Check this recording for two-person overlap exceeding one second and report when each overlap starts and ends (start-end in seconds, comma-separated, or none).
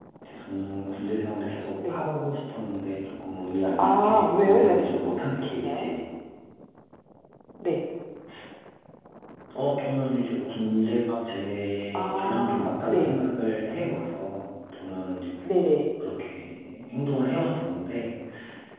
3.8-5.8, 11.9-13.1